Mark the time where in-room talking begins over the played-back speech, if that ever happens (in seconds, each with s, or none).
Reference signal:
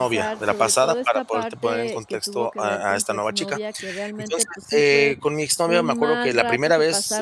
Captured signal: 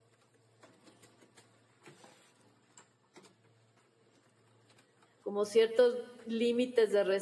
5.2 s